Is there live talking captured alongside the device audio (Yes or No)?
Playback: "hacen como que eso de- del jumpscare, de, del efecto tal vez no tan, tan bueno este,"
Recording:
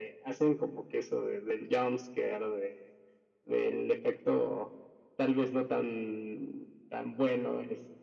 No